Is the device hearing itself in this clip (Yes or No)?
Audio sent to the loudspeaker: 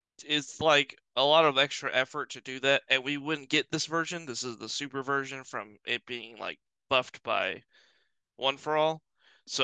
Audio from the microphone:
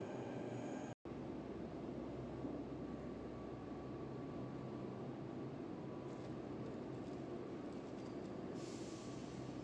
No